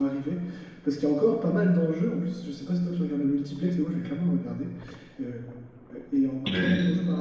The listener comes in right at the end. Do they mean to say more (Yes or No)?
No